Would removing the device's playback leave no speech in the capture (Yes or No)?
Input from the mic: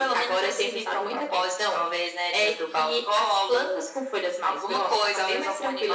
Yes